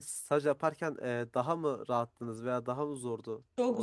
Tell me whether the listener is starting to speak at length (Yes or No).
Yes